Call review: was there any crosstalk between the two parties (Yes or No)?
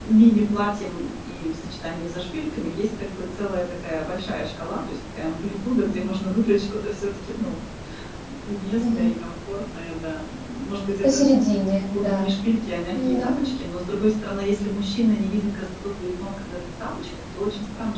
Yes